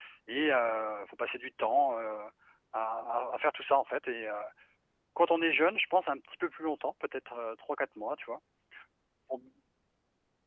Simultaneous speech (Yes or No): No